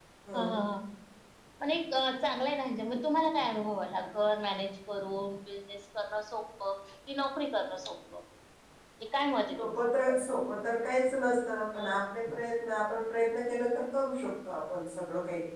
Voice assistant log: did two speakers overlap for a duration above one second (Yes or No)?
No